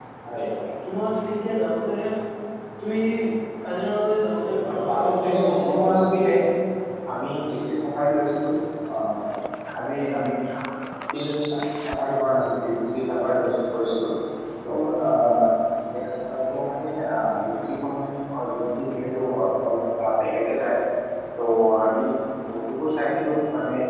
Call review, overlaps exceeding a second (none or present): present